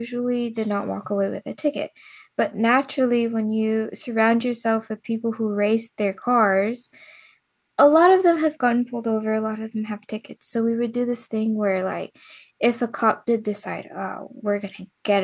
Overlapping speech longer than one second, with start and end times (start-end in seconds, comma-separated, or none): none